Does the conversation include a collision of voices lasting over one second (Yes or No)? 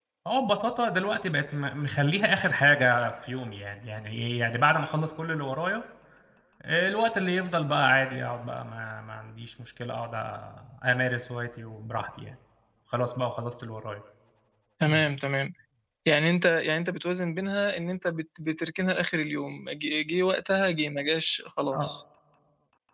No